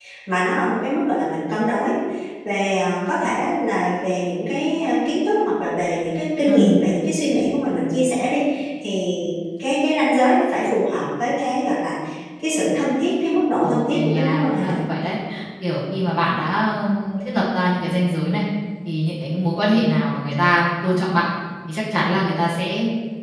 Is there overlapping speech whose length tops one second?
Yes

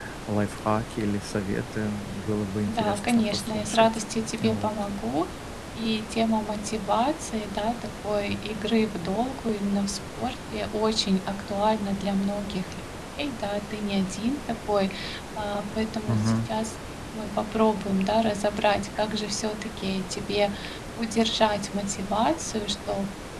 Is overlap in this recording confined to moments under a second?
No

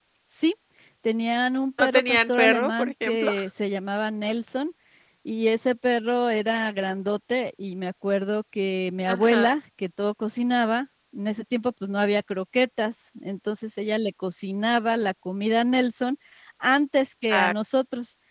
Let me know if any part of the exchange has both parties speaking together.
Yes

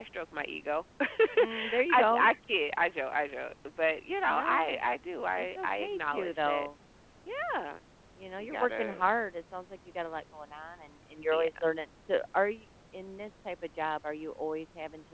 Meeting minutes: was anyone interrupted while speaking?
Yes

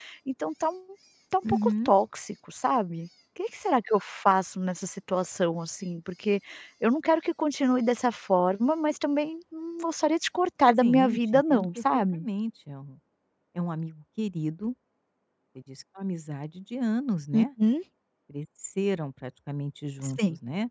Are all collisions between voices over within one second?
No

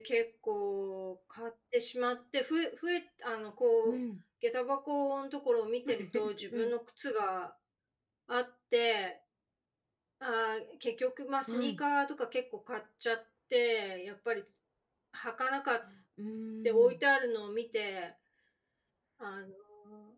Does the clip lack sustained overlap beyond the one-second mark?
Yes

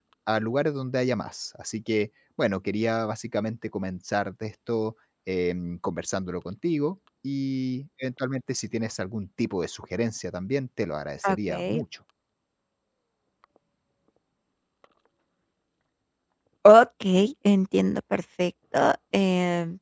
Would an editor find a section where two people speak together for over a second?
No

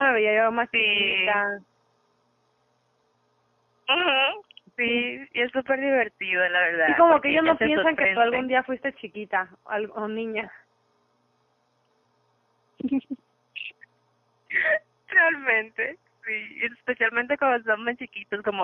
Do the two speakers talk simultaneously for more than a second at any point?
Yes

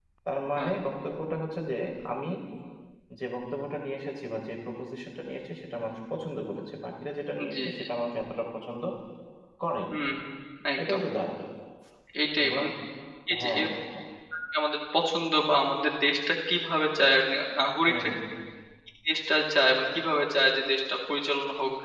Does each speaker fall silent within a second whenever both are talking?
Yes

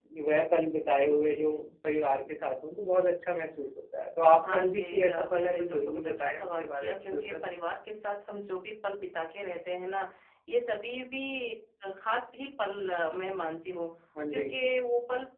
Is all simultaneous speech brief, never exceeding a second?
No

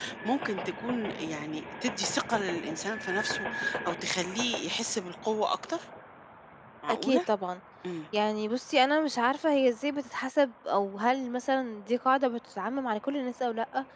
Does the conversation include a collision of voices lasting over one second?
No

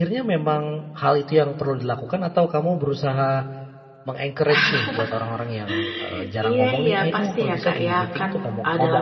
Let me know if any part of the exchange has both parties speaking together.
Yes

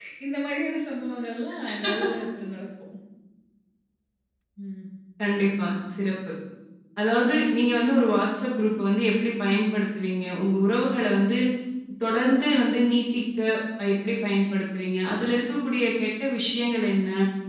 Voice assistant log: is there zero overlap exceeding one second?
Yes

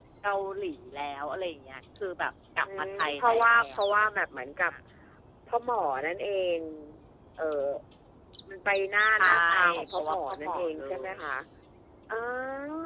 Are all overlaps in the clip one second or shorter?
No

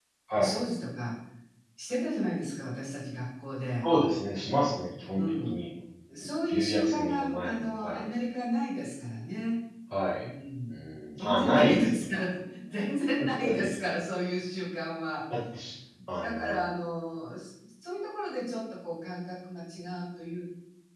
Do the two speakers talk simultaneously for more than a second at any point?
Yes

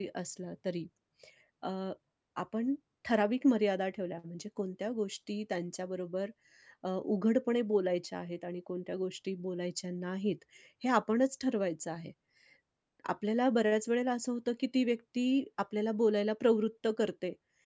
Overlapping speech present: No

